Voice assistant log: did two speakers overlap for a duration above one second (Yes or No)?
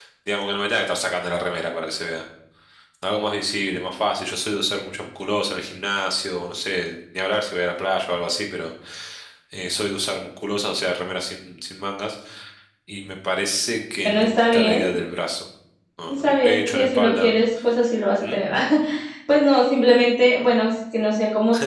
Yes